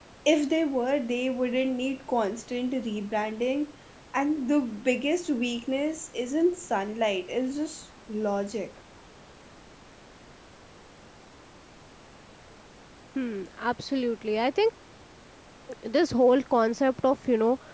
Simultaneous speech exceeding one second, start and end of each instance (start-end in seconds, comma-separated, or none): none